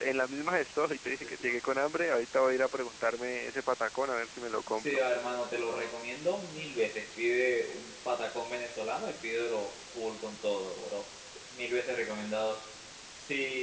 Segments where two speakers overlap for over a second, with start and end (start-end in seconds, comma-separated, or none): none